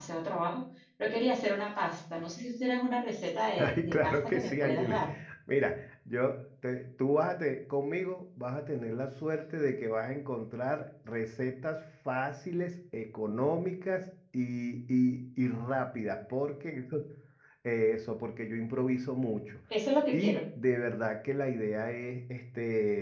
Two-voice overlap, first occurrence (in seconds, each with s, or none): 3.6 s